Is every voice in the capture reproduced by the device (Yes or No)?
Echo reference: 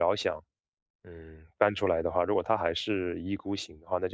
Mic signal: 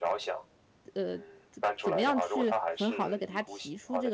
No